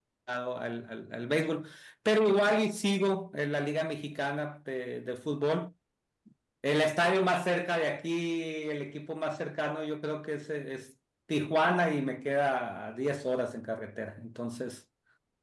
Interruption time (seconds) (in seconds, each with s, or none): none